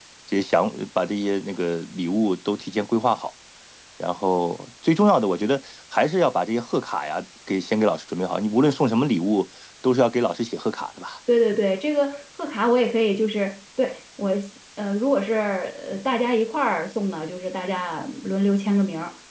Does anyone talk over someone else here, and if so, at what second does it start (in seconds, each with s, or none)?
none